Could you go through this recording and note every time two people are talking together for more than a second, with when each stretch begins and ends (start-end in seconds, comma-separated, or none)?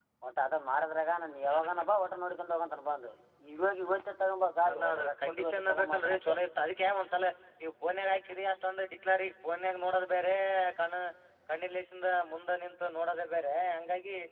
4.7-6.4